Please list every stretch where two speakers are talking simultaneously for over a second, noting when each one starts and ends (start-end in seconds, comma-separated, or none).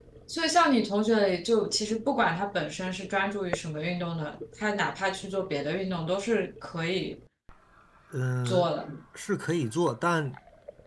none